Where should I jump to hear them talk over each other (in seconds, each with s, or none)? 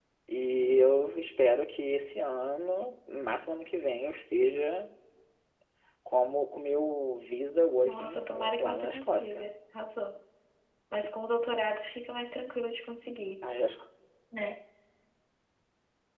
7.8 s